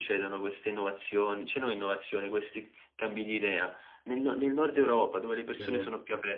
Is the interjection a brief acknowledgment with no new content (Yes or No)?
Yes